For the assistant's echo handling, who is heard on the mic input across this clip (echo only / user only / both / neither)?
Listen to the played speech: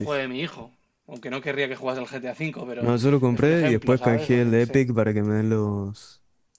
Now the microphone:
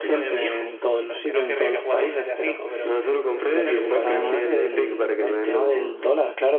both